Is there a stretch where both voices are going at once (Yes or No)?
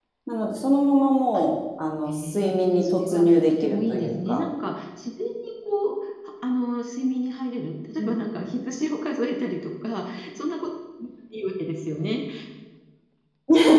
Yes